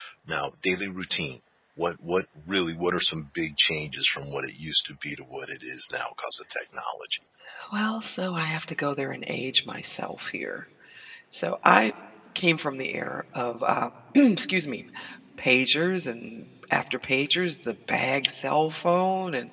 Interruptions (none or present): none